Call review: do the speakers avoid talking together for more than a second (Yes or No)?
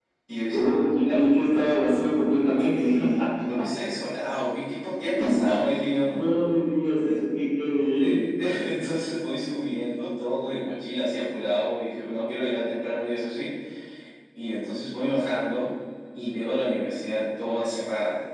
Yes